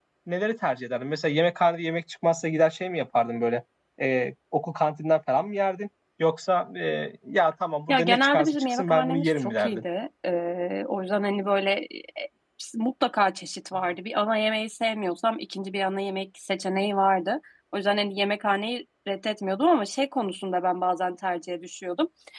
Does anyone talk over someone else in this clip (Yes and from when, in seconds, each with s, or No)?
Yes, from 7.9 s